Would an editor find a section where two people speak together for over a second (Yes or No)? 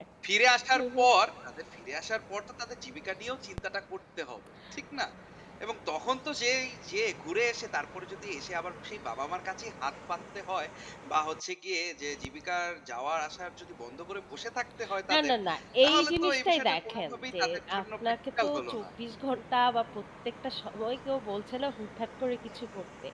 Yes